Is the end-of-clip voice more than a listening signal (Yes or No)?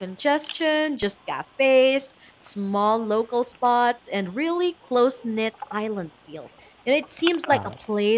No